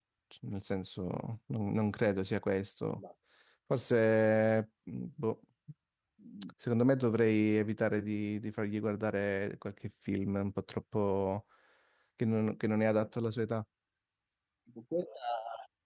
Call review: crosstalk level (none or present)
none